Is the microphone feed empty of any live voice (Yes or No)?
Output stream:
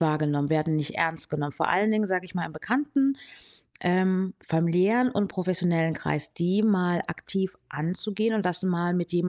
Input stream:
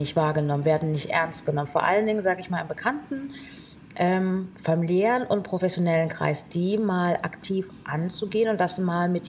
Yes